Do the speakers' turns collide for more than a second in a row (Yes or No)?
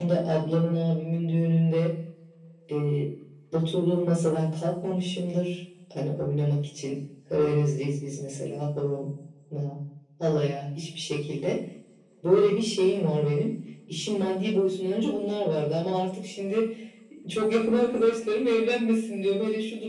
No